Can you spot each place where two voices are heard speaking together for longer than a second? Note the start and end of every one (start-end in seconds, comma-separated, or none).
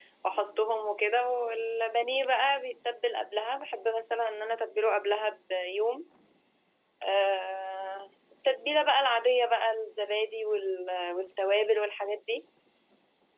none